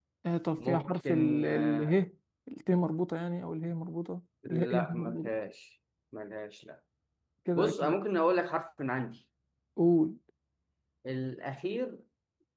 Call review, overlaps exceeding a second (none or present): present